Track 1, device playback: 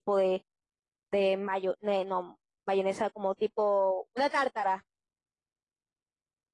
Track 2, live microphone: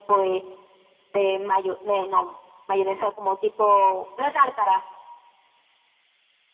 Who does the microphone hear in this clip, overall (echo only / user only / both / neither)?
echo only